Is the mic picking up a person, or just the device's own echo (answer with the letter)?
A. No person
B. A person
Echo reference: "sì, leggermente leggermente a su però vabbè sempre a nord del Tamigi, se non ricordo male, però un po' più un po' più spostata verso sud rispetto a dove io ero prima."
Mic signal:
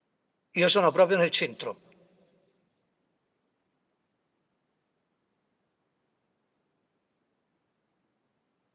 B